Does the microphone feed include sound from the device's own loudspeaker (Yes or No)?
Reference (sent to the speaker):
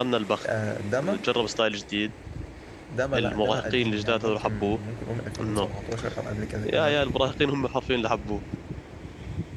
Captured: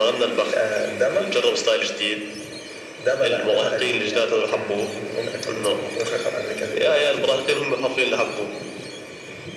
Yes